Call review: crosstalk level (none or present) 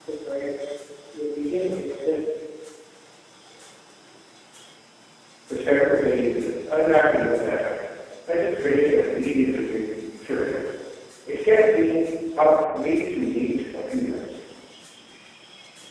none